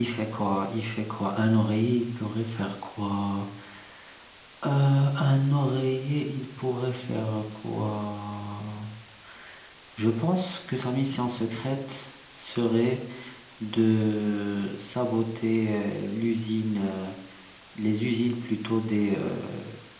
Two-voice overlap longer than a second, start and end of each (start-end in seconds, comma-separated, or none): none